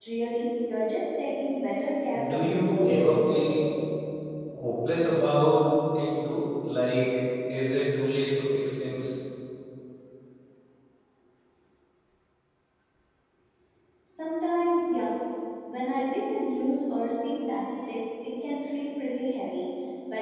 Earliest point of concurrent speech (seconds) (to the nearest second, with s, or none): 2 s